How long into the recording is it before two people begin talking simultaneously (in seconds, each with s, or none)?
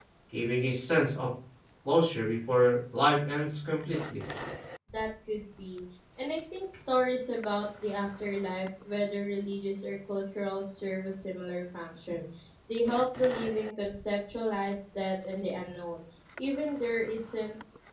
none